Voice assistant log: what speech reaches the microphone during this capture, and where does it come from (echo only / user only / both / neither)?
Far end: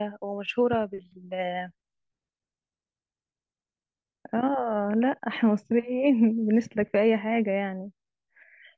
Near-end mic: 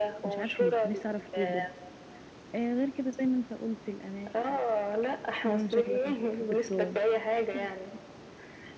both